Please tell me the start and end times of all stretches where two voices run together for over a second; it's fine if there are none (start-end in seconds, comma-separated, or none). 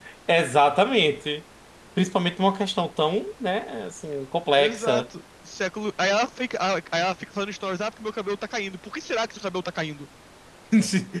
none